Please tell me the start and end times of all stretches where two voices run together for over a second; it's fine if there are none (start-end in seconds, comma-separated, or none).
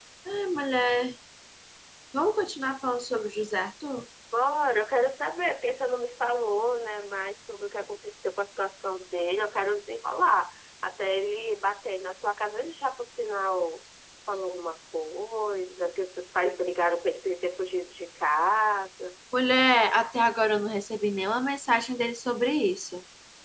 none